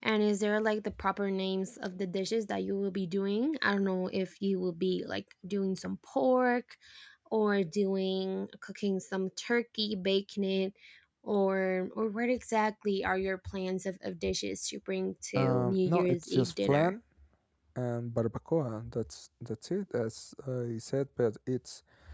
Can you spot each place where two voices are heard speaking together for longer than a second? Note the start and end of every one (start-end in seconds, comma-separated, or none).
15.3-16.9